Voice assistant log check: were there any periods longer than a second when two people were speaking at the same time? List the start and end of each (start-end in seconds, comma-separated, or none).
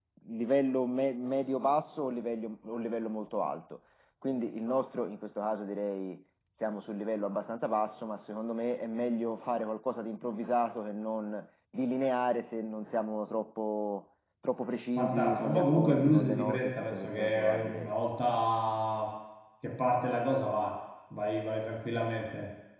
14.9-17.9